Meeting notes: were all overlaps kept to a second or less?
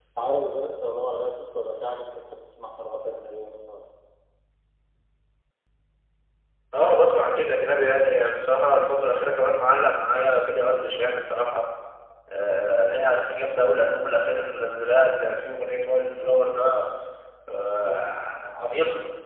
Yes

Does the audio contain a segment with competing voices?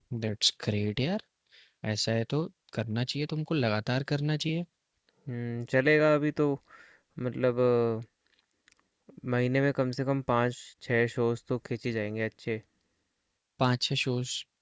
No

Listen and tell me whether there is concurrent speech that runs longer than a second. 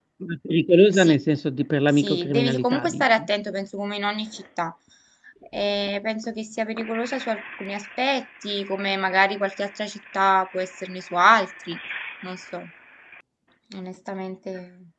Yes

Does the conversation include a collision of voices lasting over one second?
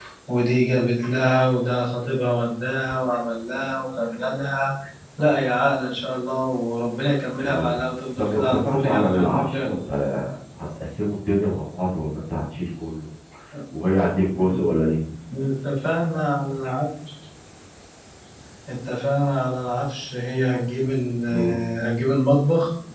Yes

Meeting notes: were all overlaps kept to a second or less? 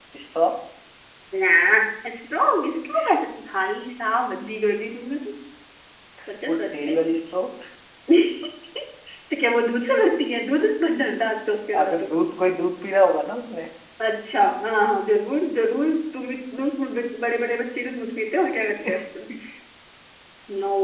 Yes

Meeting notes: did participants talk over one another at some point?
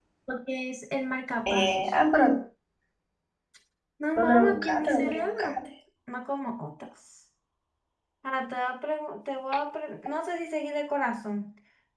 Yes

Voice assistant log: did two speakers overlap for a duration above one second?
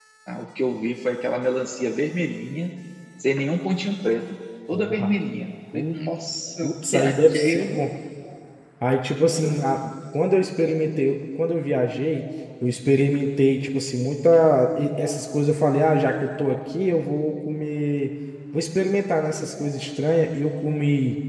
Yes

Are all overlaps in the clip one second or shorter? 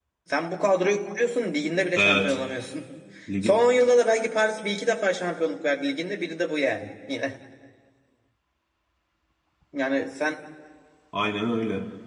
Yes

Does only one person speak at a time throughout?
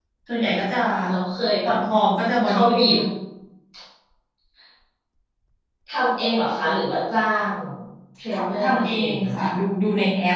No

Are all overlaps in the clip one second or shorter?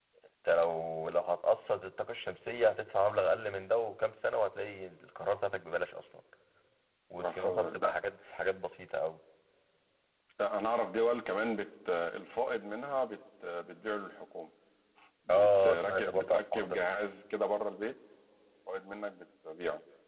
No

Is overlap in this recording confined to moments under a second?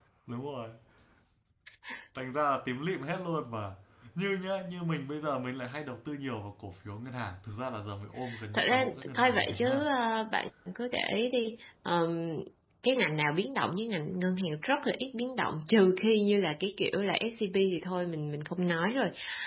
No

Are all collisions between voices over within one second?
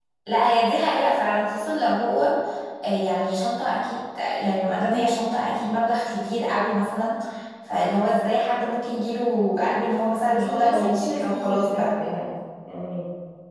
No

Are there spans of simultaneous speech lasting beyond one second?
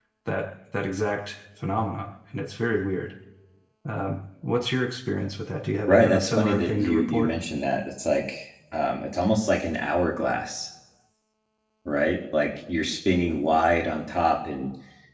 Yes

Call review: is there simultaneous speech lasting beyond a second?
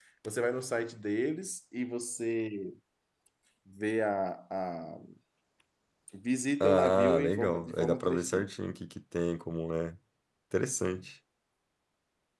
Yes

